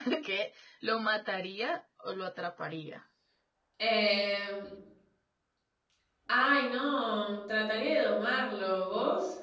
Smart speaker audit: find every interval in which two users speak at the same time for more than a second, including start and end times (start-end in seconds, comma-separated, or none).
none